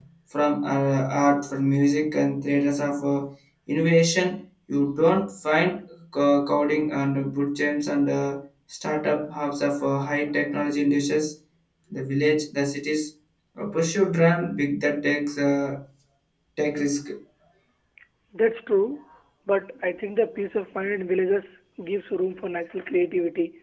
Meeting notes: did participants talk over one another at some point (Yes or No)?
No